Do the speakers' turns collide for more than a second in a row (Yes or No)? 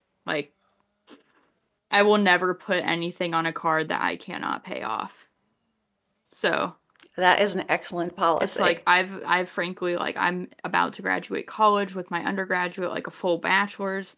No